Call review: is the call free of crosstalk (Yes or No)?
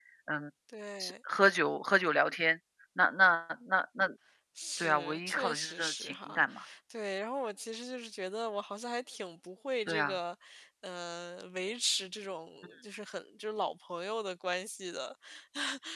No